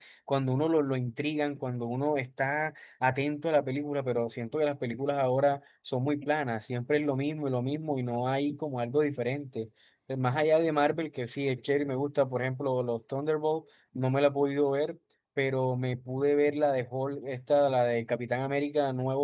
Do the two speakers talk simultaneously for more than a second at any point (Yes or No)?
No